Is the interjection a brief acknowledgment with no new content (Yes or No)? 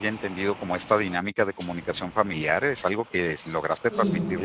Yes